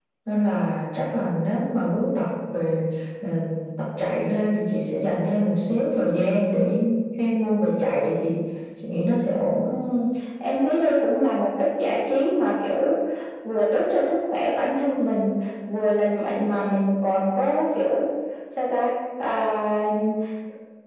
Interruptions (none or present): none